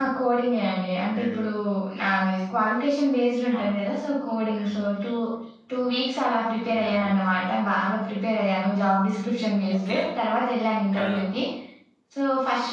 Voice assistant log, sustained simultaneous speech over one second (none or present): none